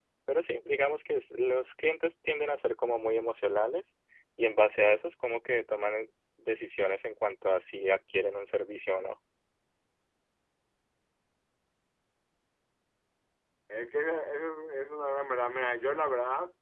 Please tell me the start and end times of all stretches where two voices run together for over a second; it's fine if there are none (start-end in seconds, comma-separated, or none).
none